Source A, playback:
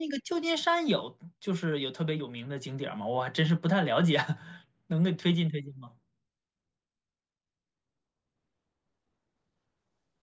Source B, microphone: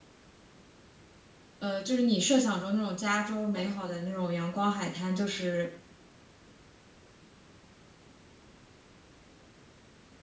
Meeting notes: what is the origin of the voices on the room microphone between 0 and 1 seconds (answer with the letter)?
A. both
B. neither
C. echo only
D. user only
B